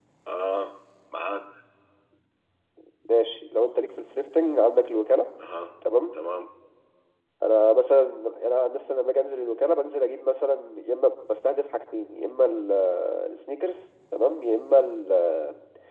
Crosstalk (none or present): none